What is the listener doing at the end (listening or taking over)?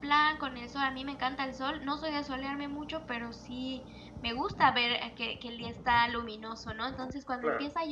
listening